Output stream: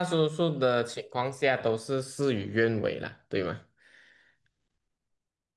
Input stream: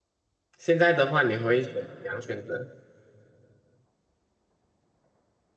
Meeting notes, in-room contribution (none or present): present